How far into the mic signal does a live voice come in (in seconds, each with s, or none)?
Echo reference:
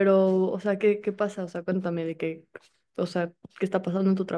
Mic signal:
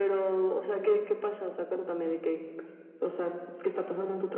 none